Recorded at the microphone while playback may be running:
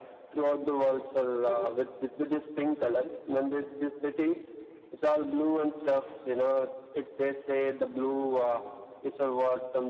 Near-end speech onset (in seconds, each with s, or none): 1.4 s